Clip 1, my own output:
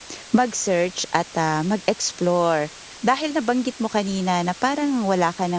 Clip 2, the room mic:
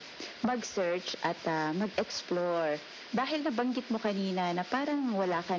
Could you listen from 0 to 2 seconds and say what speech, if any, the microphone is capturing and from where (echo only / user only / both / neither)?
echo only